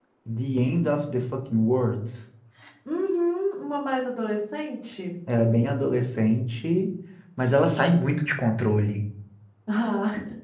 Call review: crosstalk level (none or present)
none